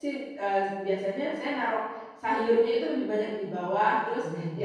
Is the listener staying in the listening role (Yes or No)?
Yes